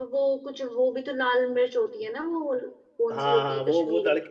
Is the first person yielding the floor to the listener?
Yes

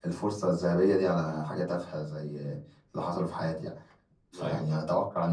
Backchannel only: Yes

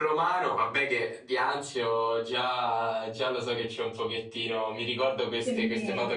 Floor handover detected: No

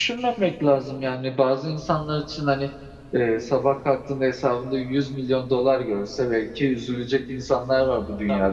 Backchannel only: No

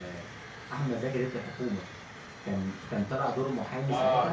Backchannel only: No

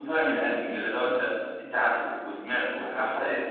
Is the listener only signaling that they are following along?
No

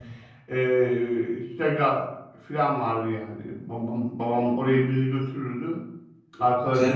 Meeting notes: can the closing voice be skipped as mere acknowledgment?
No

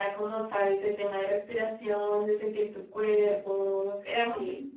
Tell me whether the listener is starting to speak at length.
No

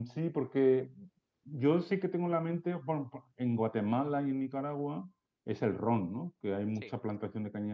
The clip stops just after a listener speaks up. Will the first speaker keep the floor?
Yes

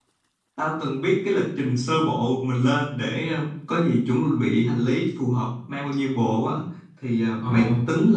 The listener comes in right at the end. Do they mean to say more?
No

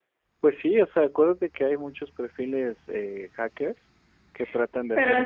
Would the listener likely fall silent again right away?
No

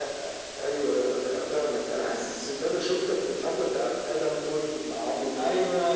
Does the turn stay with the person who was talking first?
No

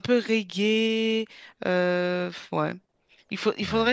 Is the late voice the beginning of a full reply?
No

